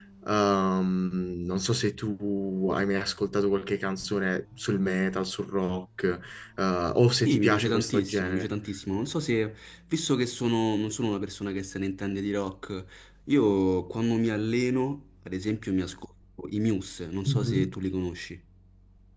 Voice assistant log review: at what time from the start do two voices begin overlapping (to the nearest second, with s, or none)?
7 s